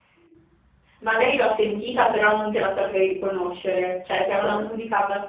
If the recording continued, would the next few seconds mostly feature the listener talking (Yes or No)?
No